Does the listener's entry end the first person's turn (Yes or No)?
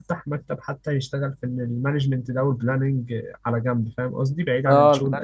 Yes